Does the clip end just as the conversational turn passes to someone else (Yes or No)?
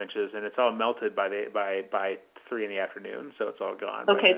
Yes